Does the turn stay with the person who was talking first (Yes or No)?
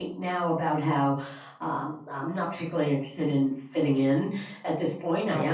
Yes